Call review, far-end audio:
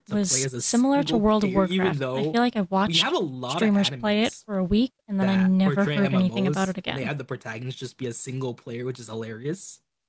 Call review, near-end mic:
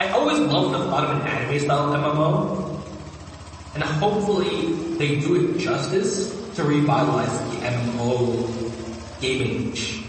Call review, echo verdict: none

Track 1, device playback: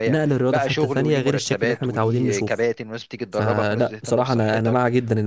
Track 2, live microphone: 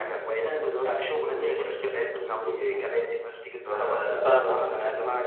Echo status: present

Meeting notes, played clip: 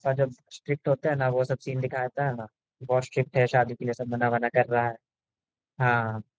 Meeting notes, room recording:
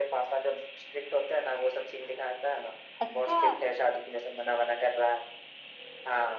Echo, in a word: present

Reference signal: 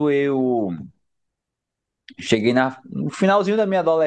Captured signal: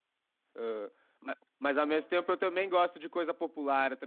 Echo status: none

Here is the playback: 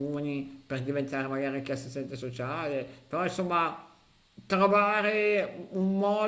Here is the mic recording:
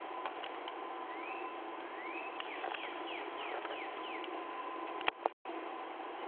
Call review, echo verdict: none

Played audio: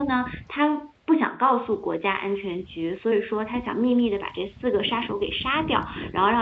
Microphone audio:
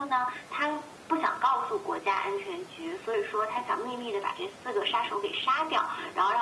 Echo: present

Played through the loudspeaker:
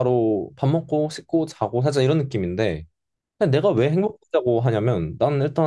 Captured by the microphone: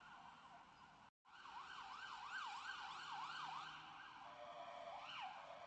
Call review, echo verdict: none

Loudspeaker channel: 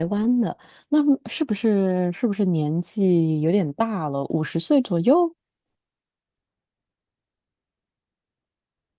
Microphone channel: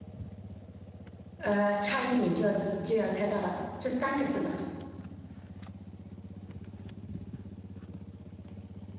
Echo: none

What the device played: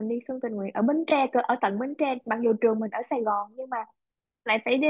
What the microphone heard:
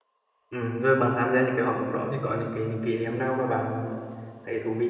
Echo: none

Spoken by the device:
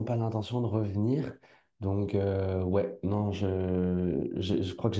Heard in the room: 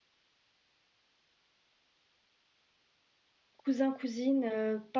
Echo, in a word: none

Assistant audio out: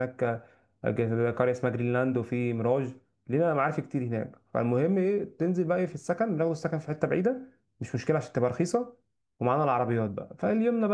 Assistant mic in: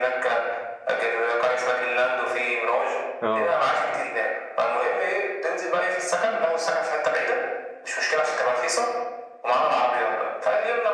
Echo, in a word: present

